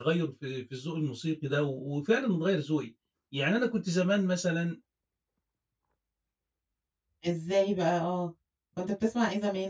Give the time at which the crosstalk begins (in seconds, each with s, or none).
none